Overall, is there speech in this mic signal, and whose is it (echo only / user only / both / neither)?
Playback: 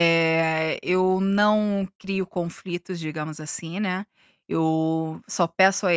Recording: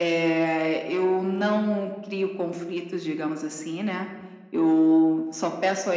echo only